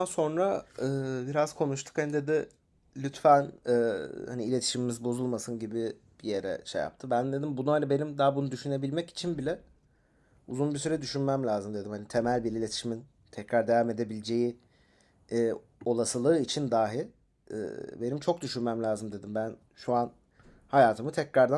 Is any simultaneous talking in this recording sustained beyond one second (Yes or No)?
No